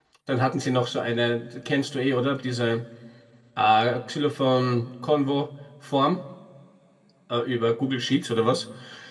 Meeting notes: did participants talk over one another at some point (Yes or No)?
No